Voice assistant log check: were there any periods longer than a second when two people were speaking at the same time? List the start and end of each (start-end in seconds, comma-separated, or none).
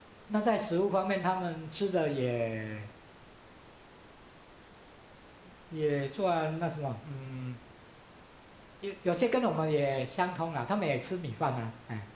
none